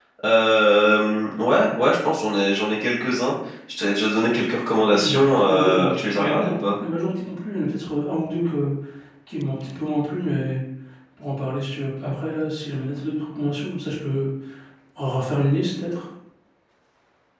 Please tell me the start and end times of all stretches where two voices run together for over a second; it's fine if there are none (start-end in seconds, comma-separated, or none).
4.9-6.5